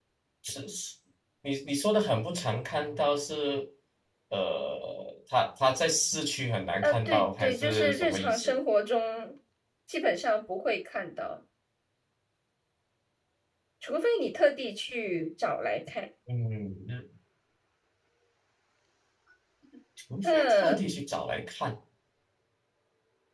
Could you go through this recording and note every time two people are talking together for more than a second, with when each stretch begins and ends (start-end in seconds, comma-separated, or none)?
6.8-8.5